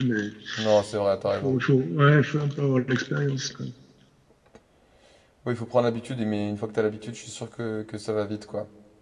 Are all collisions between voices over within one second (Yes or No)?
Yes